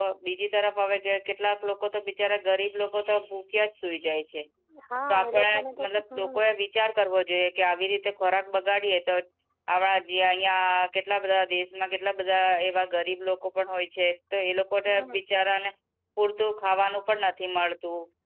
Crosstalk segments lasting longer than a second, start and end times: 5.1-6.5

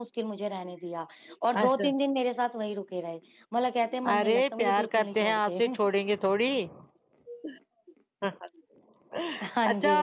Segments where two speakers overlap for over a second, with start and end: 4.2-5.6

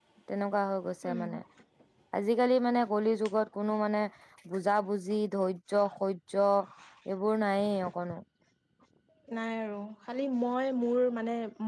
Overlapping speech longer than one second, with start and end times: none

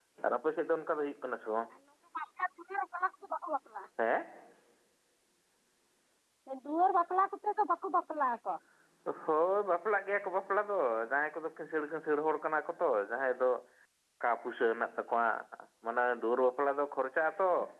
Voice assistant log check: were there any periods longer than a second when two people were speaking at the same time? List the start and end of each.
none

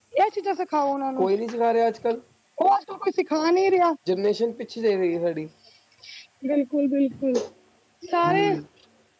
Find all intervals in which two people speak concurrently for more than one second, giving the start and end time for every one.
none

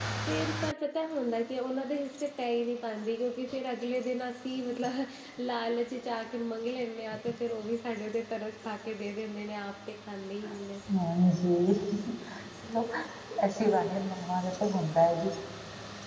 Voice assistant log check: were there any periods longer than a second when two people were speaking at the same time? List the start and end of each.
none

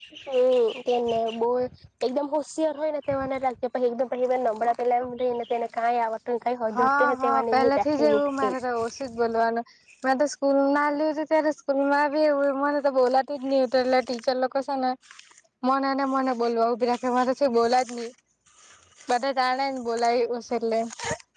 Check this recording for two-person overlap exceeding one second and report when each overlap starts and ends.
6.8-8.6

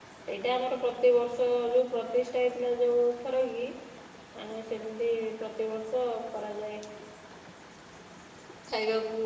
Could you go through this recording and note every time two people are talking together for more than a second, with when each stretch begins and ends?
none

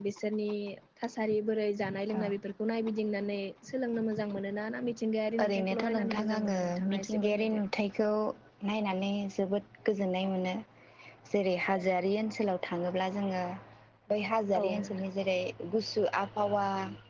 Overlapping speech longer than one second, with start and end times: 5.4-7.6

